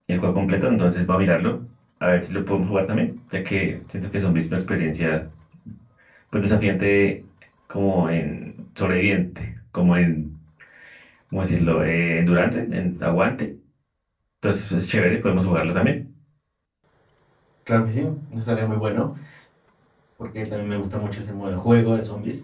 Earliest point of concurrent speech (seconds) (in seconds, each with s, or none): none